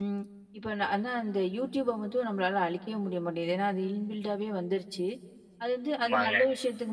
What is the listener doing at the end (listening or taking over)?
listening